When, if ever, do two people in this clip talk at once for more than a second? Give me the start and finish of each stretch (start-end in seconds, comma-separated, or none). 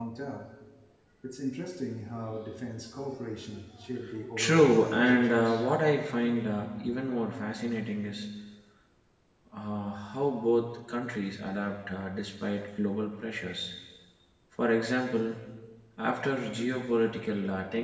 4.4-5.6